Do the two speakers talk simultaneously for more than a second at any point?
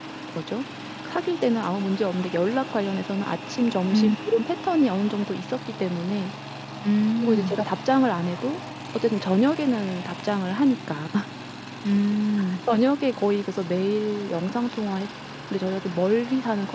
No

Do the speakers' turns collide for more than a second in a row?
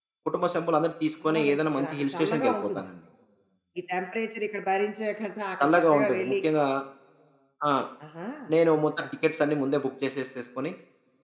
Yes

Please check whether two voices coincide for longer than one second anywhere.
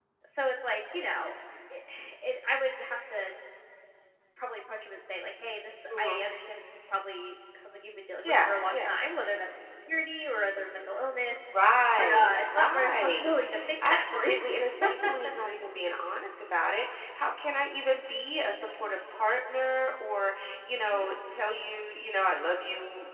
Yes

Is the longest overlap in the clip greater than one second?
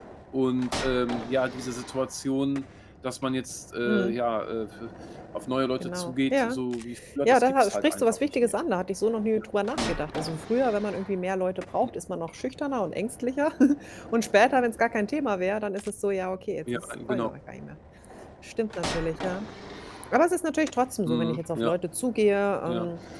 Yes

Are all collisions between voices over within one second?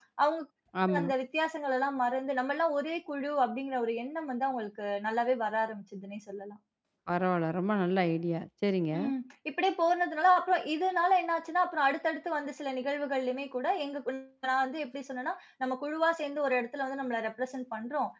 Yes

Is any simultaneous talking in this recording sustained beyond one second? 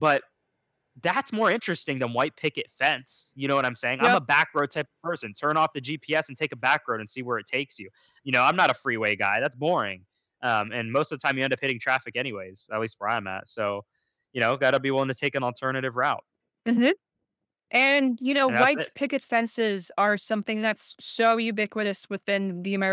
No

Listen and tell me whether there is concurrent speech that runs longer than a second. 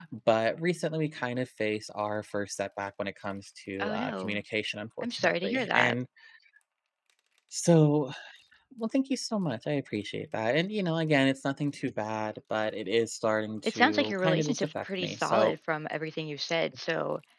Yes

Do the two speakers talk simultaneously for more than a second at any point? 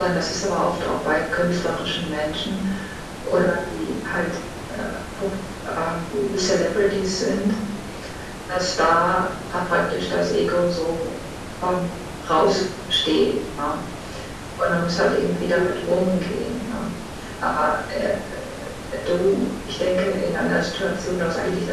No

